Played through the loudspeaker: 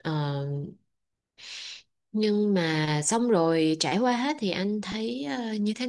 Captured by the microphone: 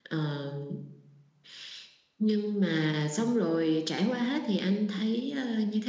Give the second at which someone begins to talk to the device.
none

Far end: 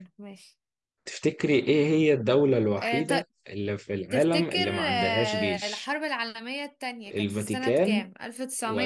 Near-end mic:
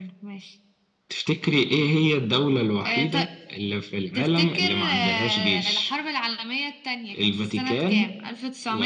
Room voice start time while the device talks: none

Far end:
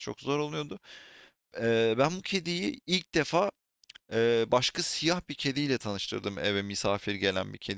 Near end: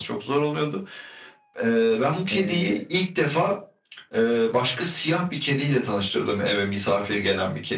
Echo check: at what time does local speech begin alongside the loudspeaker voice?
2 s

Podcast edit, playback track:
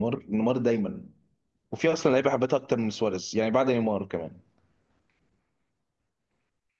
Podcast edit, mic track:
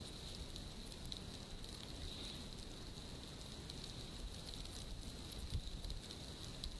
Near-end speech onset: none

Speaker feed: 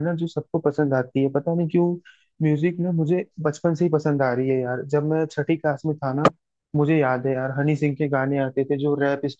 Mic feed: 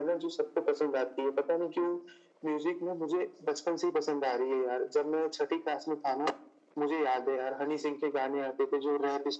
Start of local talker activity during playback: none

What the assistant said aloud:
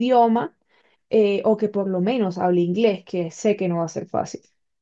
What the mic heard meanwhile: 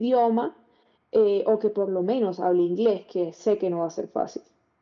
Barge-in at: none

